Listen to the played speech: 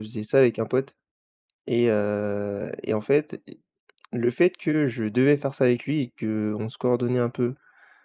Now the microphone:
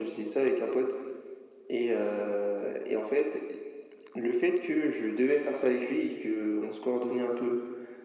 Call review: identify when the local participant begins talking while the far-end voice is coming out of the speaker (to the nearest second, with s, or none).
none